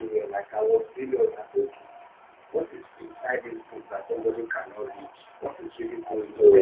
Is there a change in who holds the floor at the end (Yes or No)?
No